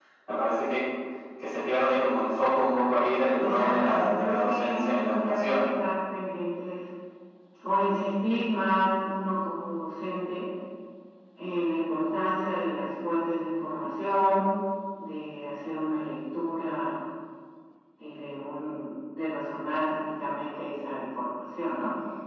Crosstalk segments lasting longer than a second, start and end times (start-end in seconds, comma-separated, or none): 3.4-5.6